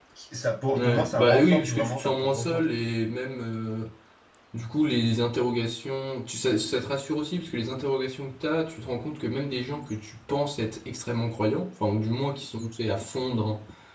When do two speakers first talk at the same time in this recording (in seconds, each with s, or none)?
0.8 s